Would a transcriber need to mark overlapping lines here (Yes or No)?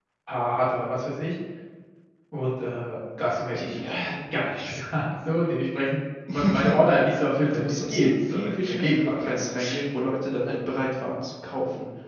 Yes